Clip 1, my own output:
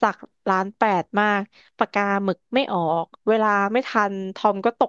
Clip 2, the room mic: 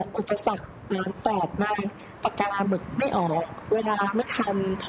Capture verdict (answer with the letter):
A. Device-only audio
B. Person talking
A